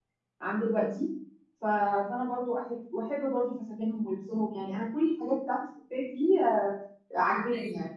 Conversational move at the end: listening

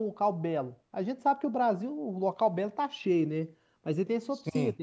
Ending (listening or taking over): listening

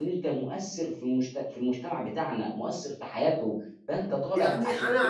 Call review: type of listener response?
taking over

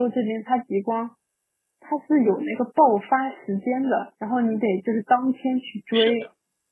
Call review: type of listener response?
taking over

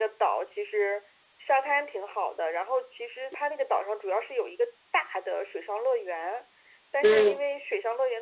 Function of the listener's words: listening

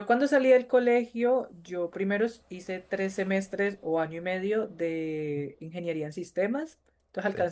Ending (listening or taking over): listening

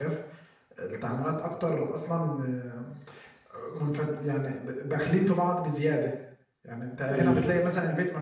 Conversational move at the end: listening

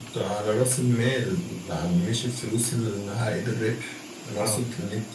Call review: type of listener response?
listening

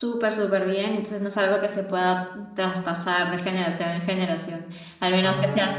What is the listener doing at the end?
listening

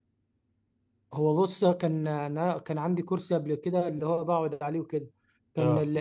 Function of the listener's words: listening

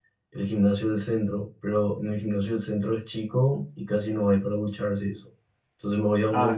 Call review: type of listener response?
listening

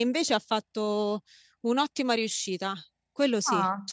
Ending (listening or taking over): taking over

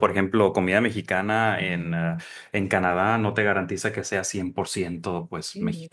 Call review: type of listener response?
taking over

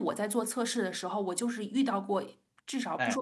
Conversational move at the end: listening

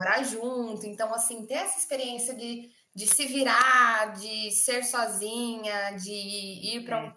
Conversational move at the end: listening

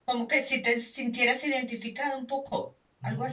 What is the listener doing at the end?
taking over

